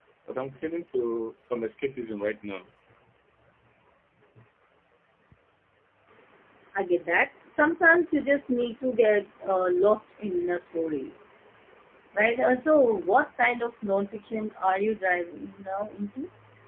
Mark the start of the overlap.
none

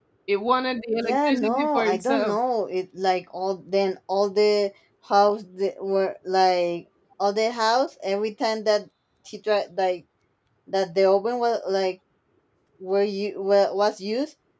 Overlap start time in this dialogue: 1 s

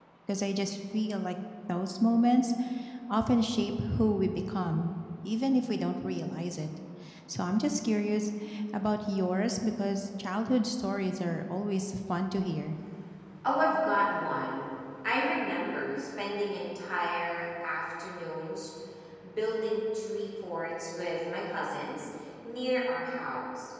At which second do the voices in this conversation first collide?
none

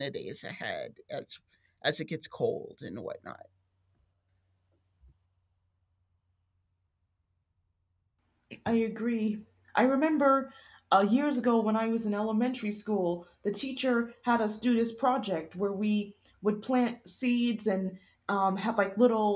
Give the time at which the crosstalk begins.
none

